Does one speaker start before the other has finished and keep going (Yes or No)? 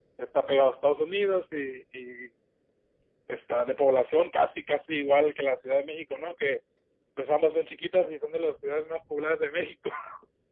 No